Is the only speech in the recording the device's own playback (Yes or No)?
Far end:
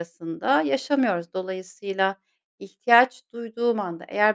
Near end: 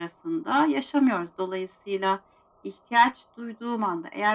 Yes